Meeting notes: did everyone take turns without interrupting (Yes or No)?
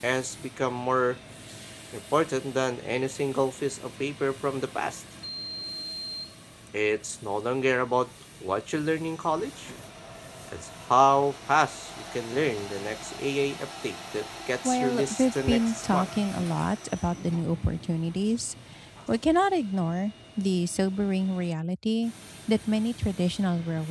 No